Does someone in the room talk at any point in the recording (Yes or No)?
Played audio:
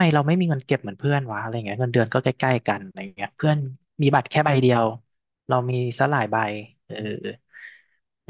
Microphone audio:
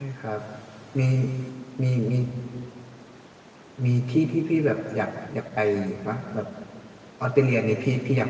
Yes